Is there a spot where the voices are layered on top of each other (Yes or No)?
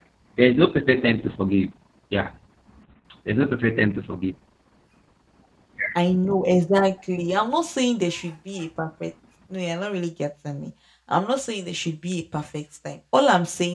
No